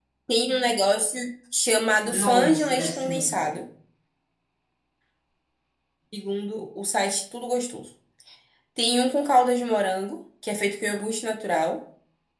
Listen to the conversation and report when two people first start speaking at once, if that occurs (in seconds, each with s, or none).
2.0 s